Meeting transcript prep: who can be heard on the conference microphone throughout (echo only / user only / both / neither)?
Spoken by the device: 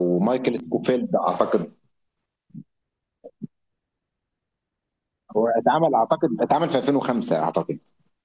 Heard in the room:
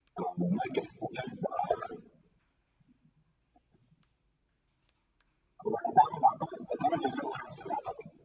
echo only